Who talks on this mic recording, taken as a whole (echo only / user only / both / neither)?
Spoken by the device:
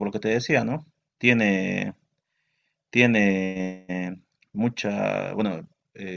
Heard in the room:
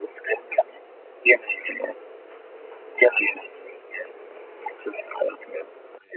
echo only